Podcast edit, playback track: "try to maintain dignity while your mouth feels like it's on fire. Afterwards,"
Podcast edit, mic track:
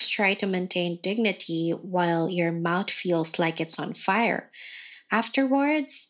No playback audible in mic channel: No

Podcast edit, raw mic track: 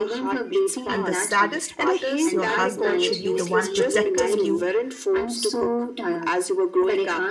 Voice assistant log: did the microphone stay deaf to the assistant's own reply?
No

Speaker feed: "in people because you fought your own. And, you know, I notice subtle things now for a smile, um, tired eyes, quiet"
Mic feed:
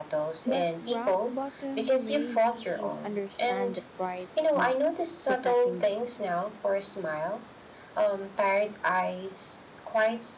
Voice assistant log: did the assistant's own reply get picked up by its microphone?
Yes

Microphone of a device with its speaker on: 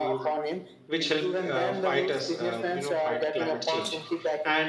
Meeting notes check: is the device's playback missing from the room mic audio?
No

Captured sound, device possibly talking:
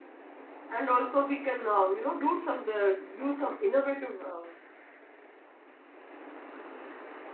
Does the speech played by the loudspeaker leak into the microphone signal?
No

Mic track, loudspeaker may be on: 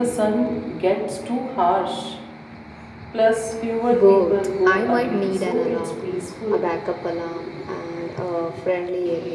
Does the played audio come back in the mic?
Yes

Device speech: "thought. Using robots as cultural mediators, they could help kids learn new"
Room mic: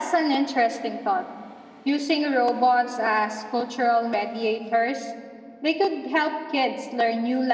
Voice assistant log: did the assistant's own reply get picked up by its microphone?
Yes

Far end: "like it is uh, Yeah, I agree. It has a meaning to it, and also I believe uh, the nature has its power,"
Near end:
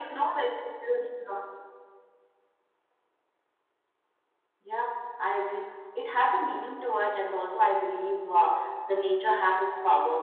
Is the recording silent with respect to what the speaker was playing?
No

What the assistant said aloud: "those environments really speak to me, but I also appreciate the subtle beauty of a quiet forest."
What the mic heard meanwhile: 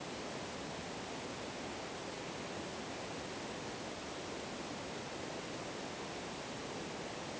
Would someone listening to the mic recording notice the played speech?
No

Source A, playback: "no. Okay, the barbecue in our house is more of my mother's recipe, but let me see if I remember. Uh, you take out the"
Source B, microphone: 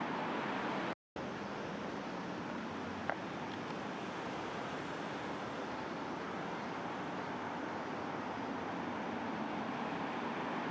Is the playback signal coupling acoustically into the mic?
No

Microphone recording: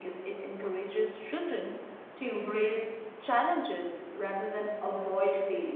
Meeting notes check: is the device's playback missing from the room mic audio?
No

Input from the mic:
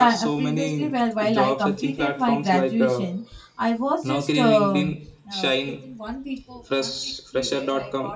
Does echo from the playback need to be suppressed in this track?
Yes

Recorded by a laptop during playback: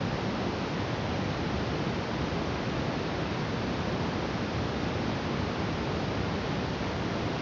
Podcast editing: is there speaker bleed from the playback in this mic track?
No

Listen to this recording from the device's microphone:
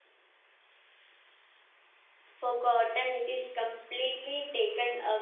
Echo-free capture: Yes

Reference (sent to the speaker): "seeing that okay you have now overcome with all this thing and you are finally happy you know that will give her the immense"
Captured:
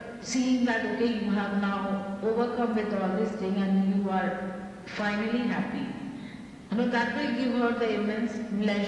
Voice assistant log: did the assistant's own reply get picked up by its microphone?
Yes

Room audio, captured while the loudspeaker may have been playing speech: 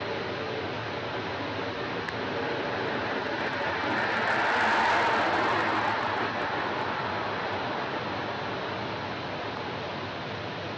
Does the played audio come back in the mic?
No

